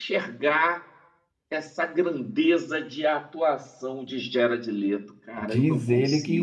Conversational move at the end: taking over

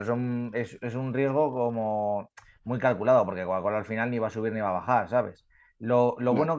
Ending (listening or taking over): listening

